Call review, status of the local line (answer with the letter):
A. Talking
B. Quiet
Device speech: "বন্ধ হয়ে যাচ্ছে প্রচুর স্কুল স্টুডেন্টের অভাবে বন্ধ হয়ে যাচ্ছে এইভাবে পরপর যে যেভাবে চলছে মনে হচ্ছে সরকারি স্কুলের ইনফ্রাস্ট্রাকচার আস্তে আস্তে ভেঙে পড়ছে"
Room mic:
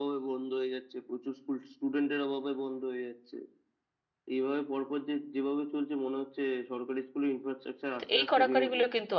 A